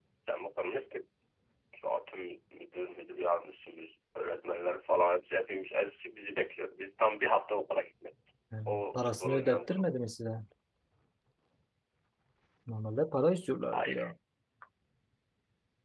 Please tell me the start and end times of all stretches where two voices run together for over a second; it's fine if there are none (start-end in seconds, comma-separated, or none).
8.7-9.9